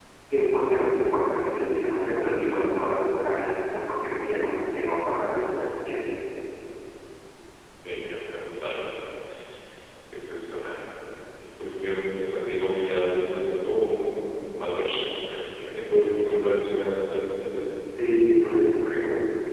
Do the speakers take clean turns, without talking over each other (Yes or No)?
Yes